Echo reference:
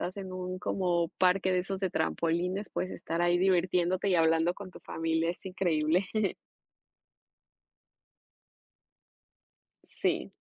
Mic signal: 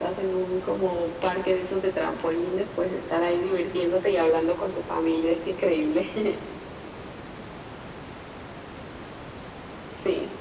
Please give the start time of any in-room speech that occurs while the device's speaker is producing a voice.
none

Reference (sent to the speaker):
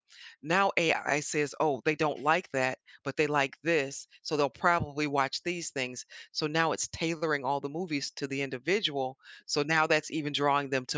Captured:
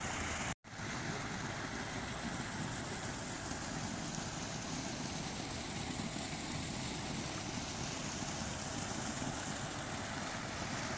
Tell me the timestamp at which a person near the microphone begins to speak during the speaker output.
none

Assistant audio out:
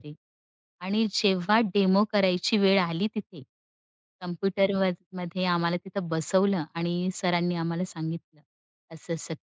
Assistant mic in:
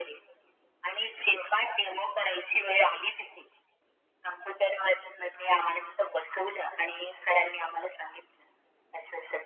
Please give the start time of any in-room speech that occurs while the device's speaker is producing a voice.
none

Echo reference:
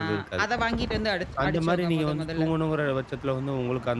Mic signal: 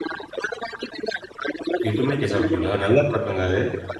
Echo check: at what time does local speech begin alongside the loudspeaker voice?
2 s

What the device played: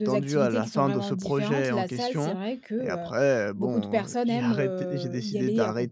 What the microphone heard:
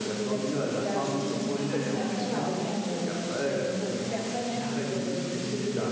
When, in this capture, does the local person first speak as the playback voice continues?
1 s

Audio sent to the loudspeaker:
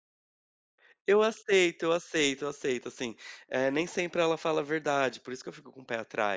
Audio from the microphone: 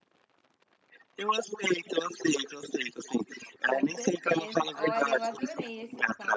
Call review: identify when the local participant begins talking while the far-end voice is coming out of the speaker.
4 s

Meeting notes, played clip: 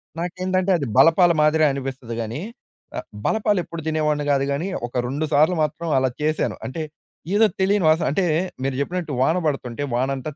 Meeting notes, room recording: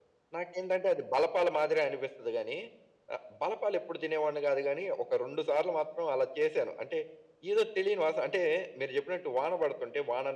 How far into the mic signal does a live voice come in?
none

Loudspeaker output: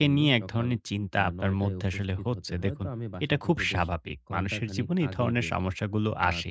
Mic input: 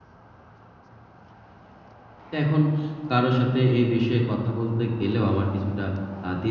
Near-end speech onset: 2 s

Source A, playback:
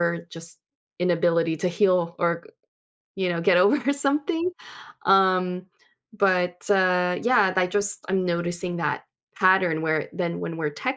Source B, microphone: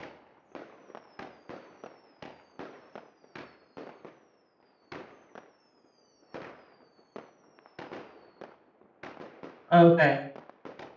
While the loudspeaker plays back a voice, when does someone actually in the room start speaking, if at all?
10 s

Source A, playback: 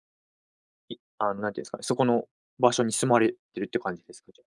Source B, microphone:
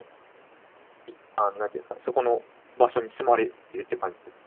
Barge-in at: none

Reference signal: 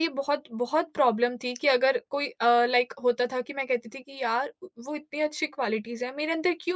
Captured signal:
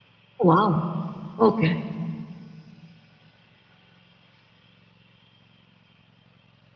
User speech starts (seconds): 0 s

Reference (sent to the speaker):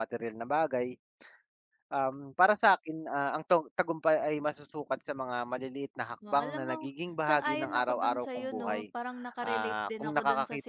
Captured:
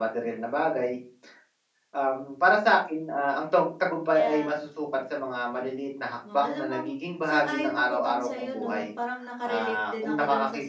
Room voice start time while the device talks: 4 s

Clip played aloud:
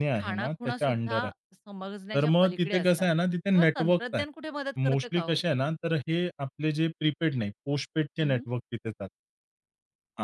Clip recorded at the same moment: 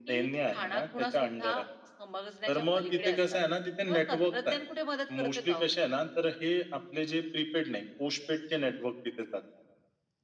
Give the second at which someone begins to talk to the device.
none

